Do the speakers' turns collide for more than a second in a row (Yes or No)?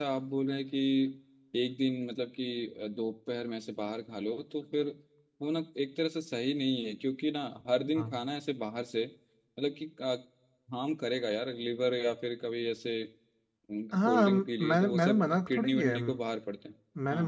Yes